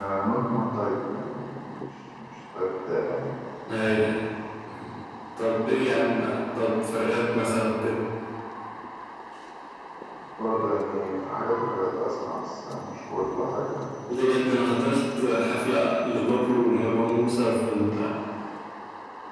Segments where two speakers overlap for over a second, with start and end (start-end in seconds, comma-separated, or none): none